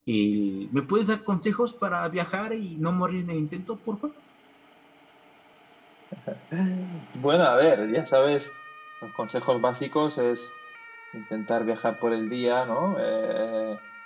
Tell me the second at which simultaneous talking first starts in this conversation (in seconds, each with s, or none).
none